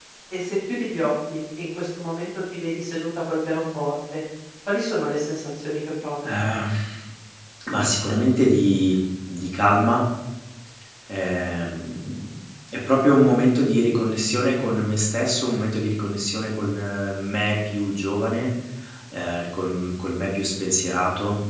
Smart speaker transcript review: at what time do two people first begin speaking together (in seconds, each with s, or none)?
none